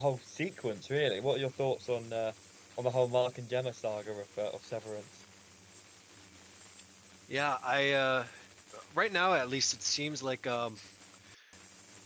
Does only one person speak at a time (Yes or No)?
Yes